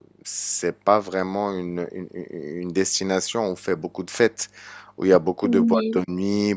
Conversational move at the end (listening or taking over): listening